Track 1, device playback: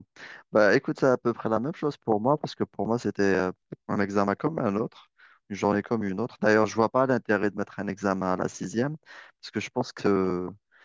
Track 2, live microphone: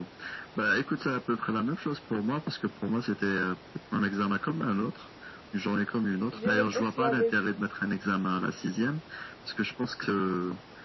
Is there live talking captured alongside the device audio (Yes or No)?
Yes